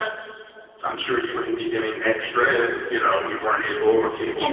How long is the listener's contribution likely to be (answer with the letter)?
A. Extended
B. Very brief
A